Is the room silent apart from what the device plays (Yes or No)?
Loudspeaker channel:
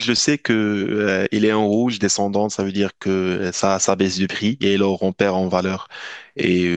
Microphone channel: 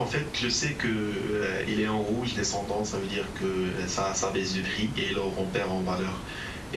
Yes